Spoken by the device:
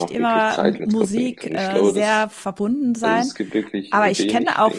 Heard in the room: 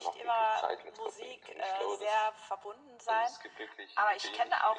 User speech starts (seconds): none

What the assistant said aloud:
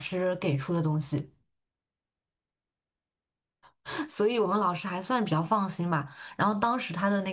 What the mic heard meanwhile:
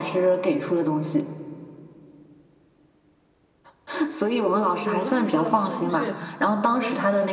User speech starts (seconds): 5 s

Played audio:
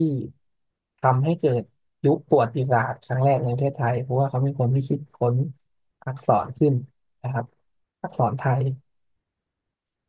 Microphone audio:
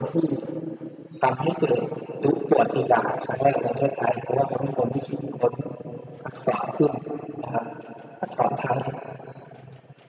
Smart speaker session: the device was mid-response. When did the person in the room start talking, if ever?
none

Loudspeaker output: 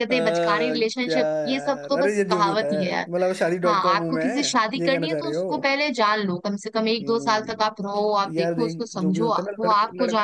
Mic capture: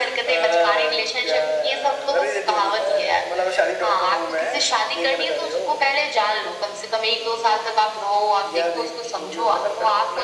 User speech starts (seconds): none

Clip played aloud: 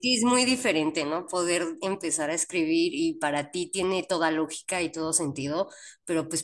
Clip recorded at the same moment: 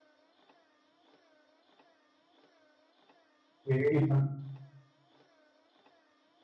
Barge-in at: 4 s

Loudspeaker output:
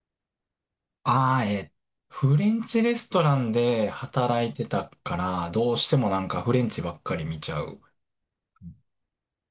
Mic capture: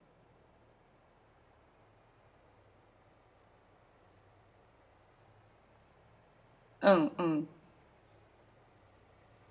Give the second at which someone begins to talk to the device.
7 s

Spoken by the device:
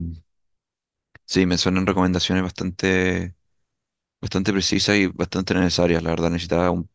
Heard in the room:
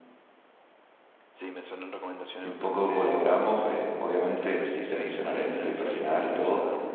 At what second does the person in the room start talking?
2 s

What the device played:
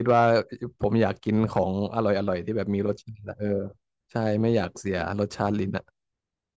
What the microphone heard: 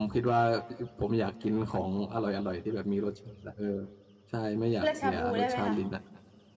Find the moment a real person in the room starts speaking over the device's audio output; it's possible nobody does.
5 s

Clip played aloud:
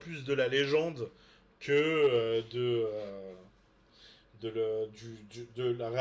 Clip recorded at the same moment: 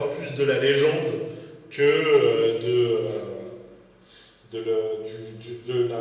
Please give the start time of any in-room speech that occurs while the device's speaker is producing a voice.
none

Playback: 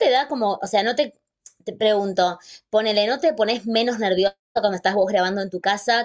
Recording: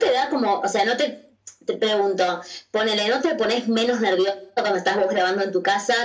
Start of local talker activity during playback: none

